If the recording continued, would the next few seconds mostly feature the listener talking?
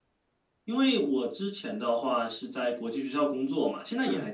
No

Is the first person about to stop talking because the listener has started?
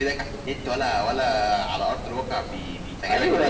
Yes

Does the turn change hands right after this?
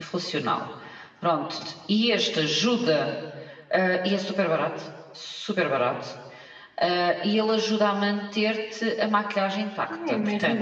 Yes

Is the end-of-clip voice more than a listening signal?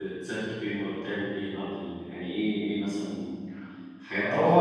Yes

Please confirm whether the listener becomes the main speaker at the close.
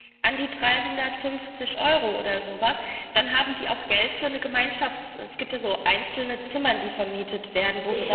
Yes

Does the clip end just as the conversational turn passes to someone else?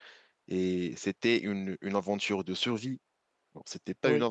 No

